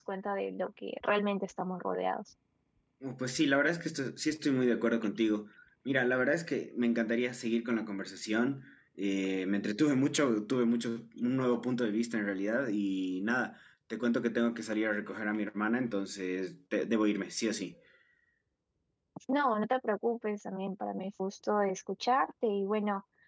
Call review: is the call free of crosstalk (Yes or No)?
Yes